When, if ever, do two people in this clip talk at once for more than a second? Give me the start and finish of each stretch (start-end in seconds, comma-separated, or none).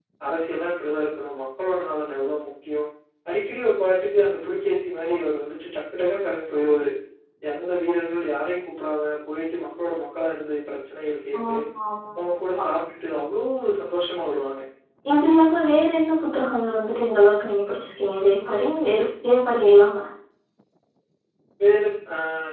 none